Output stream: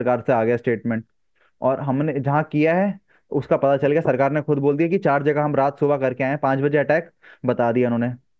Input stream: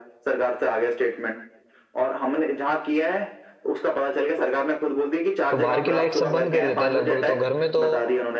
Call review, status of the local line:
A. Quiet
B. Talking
B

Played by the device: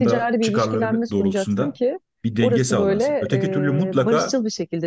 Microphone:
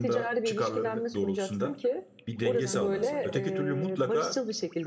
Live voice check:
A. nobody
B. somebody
B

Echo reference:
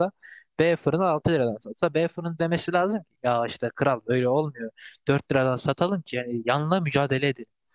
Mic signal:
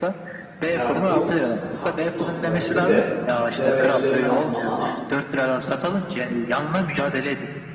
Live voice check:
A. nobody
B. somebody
B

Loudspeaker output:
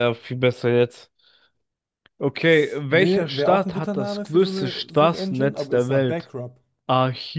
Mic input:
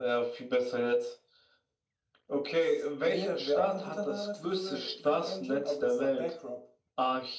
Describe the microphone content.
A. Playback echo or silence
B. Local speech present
A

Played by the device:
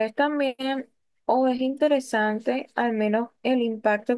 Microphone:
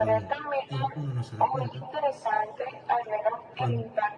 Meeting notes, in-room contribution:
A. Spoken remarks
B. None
A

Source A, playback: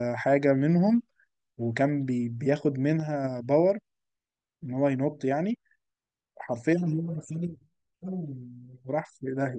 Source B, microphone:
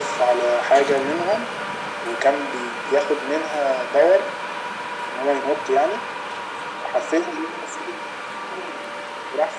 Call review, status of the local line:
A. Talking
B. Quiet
B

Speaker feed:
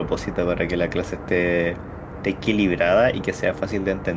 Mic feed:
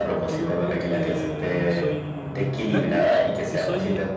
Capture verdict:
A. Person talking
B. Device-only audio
A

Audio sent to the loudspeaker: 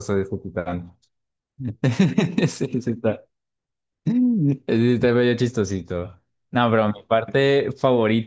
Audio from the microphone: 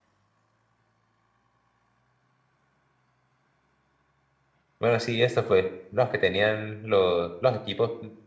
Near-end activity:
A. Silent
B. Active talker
B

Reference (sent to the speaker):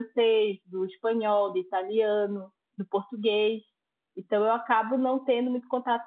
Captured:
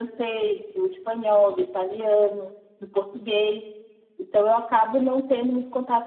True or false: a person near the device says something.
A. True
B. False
B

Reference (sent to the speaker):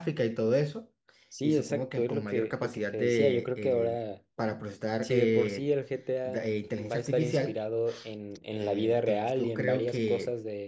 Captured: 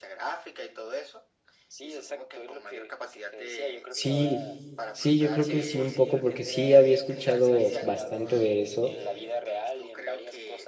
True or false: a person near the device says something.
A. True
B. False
A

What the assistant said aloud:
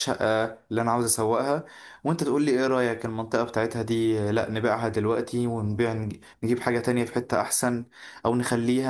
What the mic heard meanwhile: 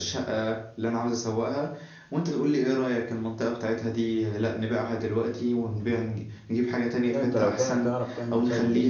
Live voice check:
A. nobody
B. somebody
B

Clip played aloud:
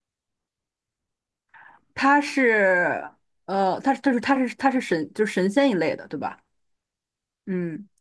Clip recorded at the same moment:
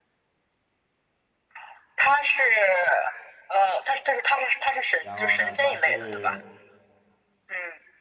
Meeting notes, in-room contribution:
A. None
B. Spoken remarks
B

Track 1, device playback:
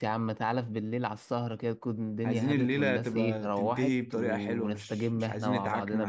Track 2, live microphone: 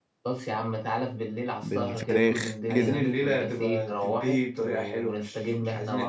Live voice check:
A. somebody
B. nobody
A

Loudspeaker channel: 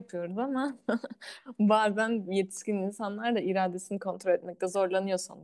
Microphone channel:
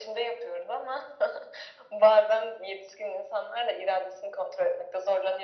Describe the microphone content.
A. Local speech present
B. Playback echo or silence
B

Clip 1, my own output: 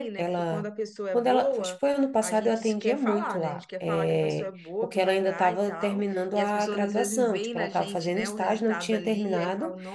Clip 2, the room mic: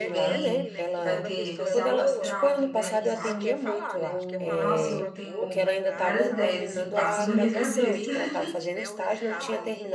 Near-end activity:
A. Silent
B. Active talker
B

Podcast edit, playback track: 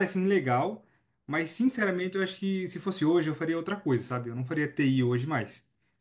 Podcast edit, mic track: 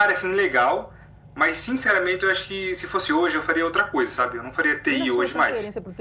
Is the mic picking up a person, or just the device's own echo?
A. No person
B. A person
B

